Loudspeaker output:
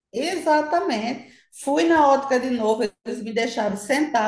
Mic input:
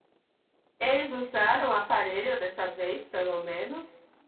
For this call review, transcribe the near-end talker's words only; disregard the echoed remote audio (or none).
Eles usaram o aparelho dessa vez, pelo menos.